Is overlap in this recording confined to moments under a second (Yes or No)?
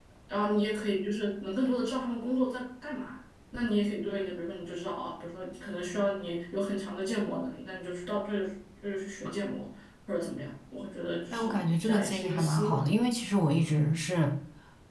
No